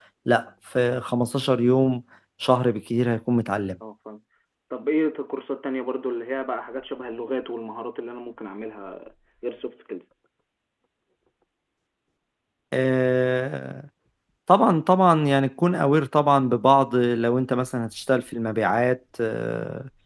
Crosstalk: none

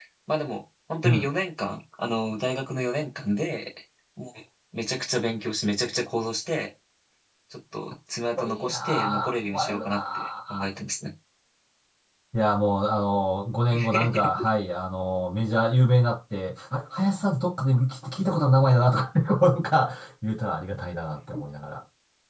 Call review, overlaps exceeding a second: present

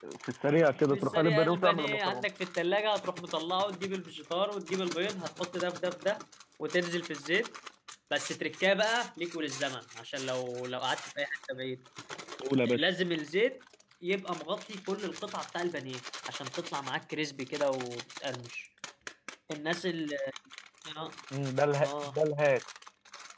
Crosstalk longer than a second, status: present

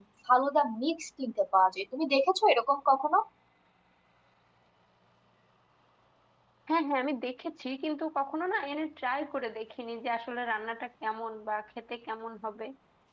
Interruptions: none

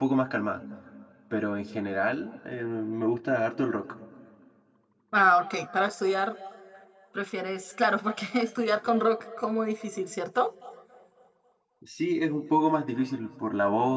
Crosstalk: none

